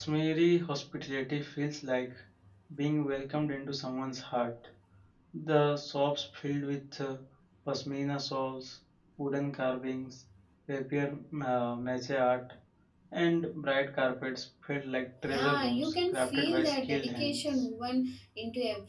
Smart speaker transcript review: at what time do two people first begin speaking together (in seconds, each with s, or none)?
15.2 s